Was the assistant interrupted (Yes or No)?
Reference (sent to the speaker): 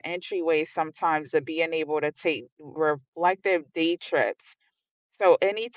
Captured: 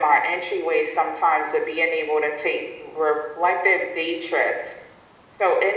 No